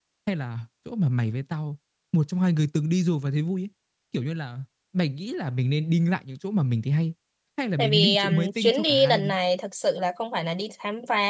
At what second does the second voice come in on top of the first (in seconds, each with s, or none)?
7.8 s